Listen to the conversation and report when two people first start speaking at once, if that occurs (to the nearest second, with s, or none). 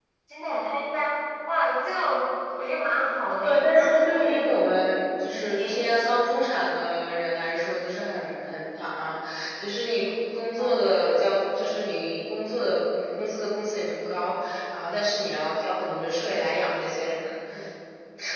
3 s